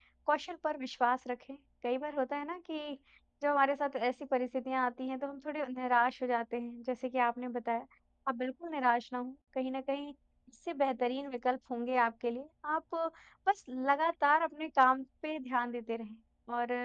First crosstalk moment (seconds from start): none

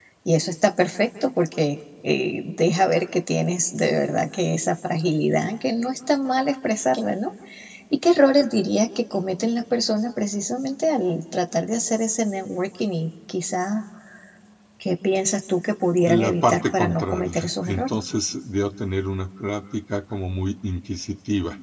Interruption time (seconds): 16.1 s

